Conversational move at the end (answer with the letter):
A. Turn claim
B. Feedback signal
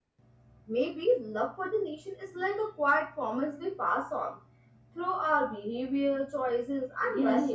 A